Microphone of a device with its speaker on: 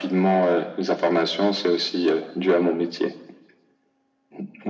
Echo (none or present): present